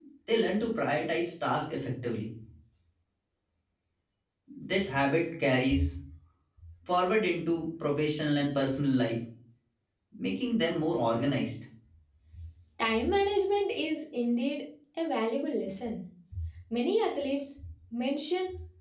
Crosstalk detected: No

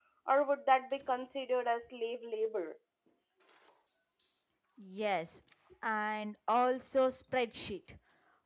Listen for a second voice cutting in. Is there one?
No

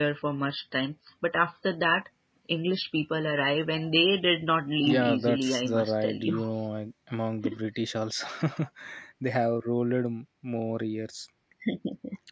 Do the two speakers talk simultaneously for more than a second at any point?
Yes, from 4.8 s

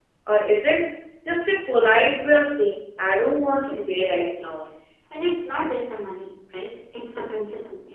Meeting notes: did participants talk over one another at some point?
Yes, from 3.3 s

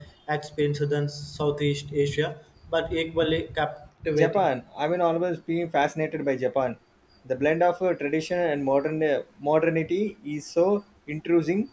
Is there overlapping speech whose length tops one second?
No

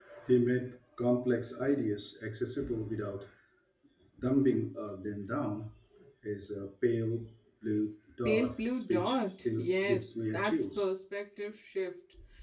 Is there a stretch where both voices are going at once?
Yes, from 8.2 s

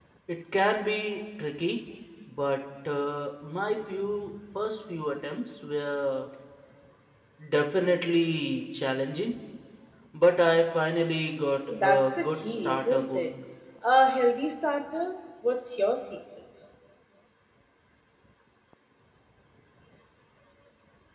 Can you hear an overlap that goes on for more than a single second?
Yes, from 11.7 s

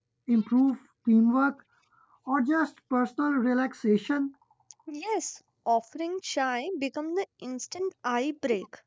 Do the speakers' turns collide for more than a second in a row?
No

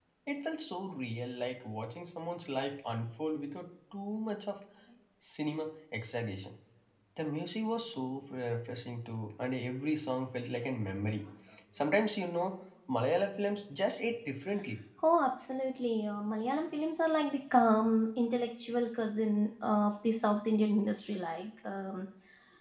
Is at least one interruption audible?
No

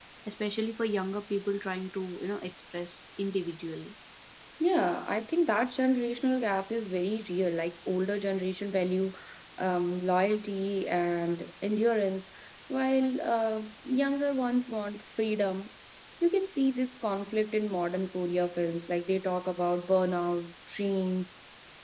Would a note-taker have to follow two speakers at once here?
No

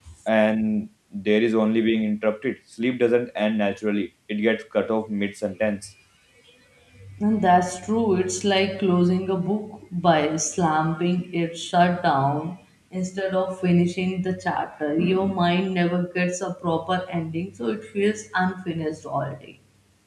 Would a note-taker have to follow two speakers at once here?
No

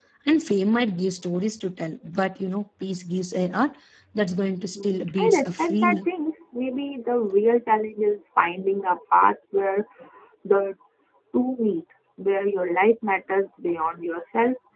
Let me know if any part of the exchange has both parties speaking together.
Yes, from 4.8 s

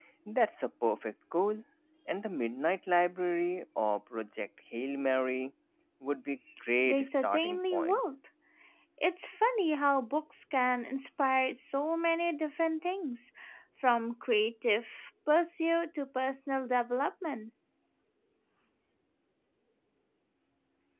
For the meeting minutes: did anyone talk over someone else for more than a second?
Yes, from 6.9 s

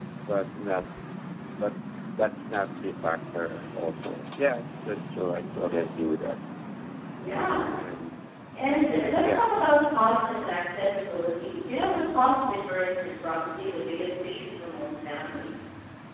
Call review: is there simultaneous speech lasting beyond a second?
No

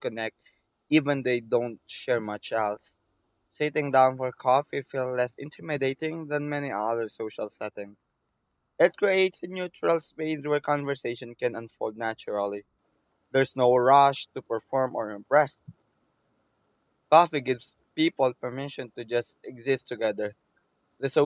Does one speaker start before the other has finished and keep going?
No

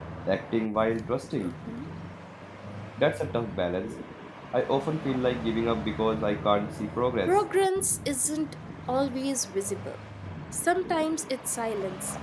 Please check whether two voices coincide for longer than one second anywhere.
No

